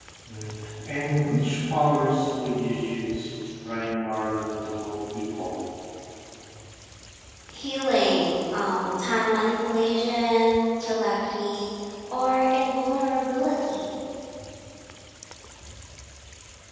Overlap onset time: none

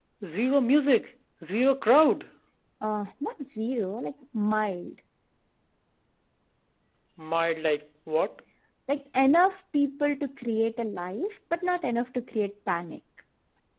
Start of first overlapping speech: none

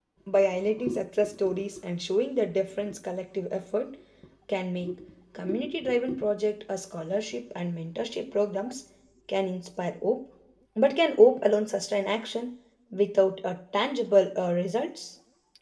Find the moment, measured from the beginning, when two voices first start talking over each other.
none

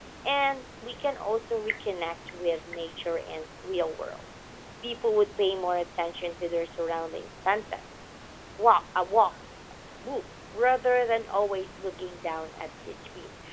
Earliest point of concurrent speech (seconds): none

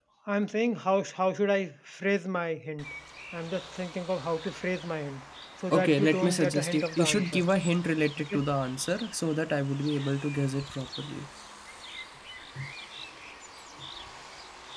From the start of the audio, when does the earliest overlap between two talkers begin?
6 s

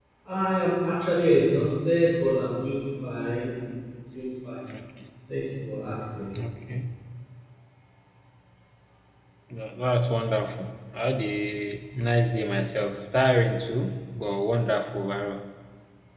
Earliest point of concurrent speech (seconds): none

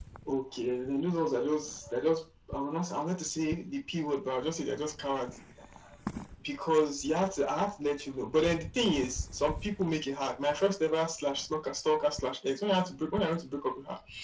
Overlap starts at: none

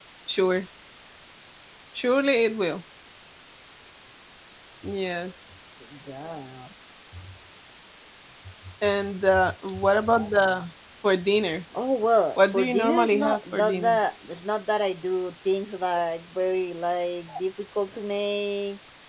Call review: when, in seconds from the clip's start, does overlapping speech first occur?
12 s

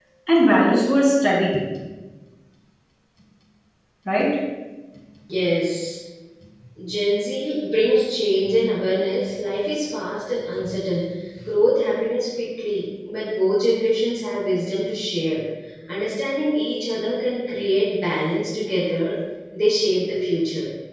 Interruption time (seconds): none

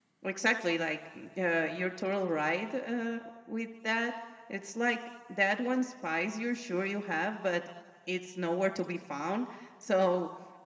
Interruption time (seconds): none

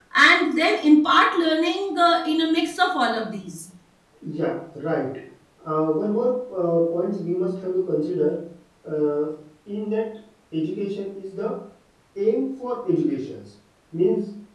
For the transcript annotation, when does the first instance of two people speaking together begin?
none

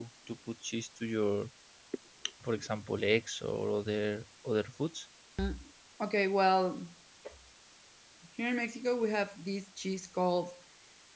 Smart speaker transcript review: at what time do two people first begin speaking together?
none

